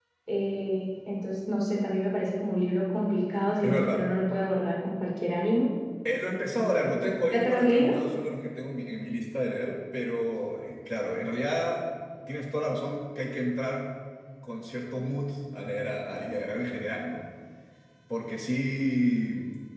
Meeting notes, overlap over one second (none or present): present